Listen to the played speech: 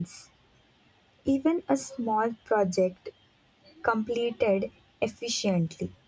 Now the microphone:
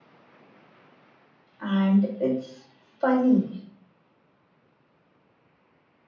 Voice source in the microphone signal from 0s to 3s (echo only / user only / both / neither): user only